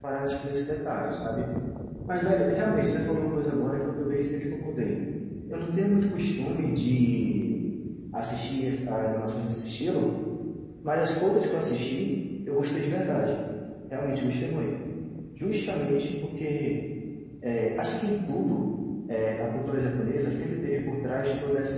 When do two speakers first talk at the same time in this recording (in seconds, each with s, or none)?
none